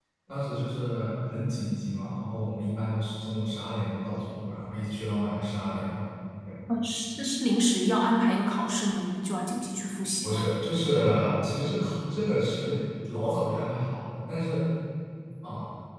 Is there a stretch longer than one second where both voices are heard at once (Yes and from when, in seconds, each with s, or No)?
No